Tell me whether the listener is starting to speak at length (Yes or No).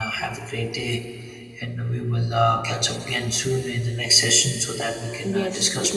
Yes